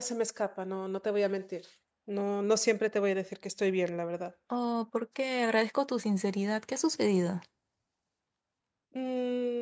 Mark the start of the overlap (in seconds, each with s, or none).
none